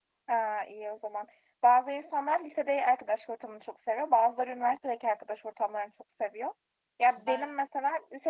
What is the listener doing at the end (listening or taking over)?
listening